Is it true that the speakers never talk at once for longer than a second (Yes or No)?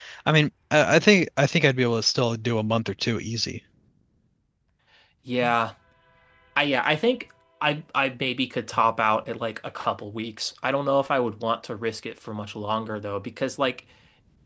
Yes